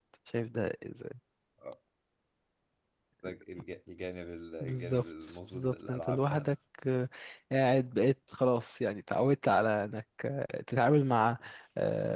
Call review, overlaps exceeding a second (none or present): present